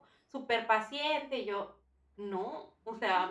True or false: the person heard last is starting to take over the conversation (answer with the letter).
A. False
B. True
A